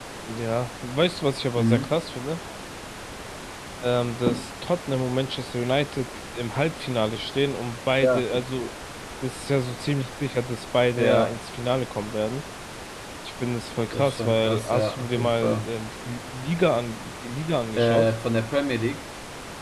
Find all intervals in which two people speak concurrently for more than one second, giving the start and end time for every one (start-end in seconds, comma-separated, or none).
13.9-15.7